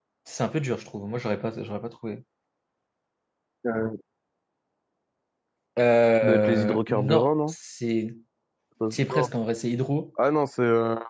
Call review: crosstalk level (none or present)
present